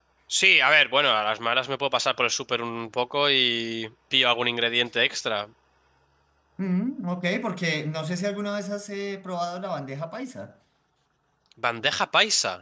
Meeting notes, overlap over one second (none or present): none